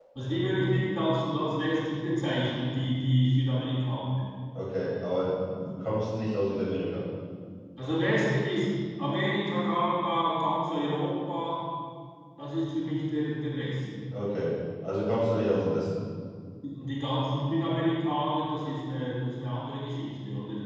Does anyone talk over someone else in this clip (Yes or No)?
No